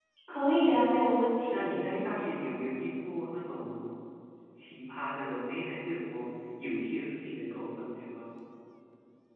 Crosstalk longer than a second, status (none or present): none